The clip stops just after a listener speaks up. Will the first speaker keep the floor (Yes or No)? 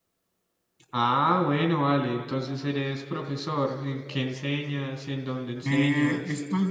No